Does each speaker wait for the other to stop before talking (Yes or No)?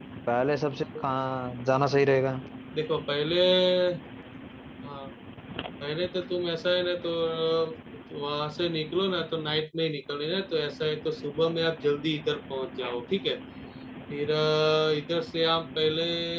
Yes